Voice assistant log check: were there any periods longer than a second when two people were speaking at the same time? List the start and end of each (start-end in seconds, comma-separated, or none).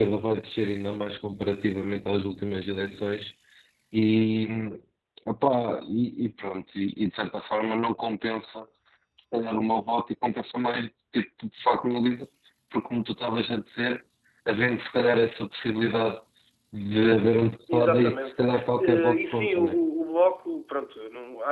17.7-19.8